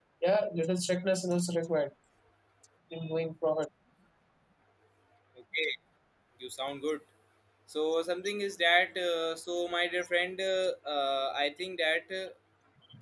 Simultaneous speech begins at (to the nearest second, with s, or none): none